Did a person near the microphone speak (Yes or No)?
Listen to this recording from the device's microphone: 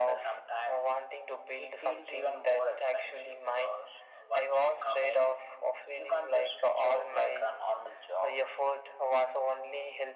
No